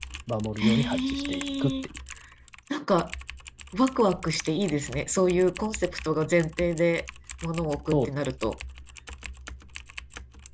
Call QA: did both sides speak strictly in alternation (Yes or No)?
No